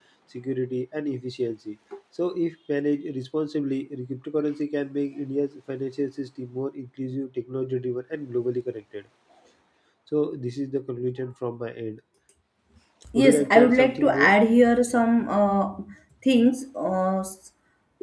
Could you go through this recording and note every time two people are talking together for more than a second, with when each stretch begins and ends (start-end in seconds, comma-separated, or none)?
13.2-14.4